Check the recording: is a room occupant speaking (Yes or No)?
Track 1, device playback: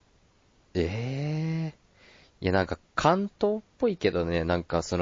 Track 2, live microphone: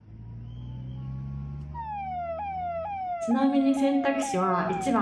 Yes